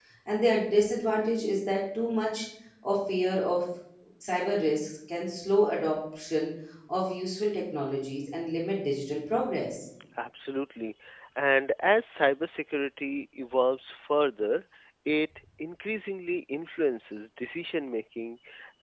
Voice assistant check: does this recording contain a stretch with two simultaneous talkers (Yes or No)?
No